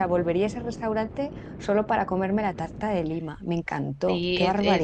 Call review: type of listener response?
taking over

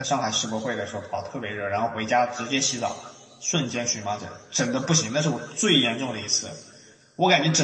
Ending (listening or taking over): listening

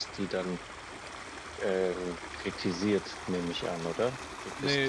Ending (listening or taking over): taking over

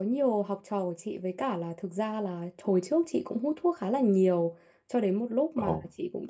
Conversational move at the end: listening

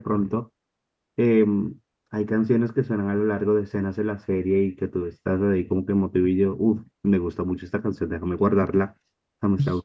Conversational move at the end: taking over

